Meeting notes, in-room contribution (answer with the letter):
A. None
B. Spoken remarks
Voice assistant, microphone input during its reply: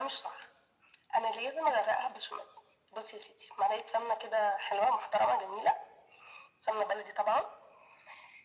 A